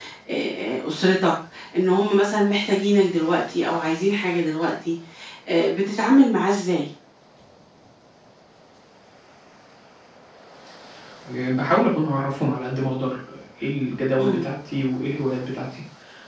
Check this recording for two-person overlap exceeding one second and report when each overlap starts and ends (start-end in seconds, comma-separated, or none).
none